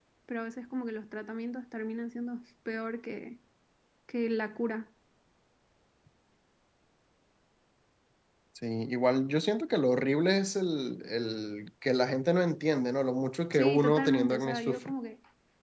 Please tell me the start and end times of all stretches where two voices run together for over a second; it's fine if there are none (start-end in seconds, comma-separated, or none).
13.5-14.9